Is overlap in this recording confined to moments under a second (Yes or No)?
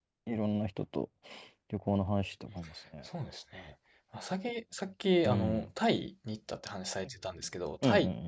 Yes